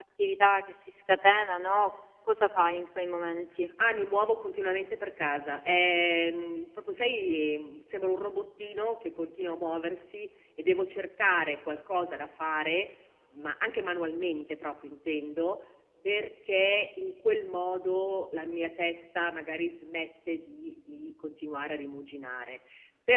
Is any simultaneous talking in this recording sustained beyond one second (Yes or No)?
No